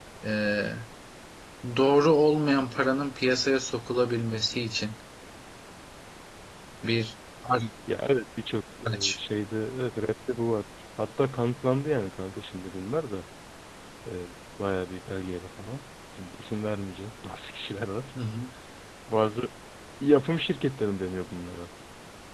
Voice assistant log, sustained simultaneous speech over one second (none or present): none